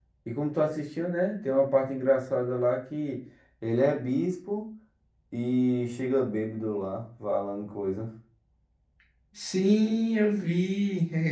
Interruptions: none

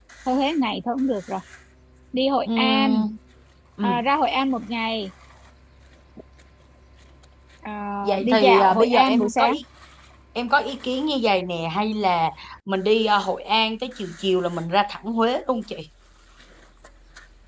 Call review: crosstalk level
present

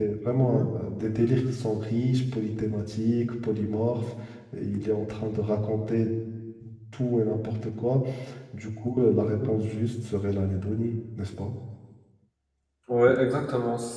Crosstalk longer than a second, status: none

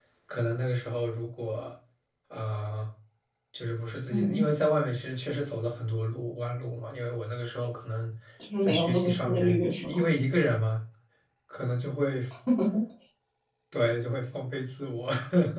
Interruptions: present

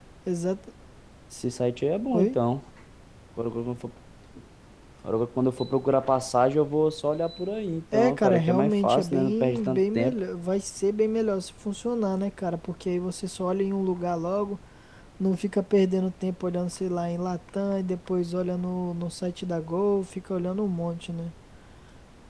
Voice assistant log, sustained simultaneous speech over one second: present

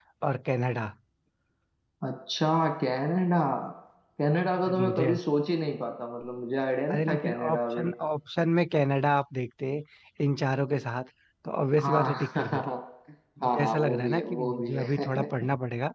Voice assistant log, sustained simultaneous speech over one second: present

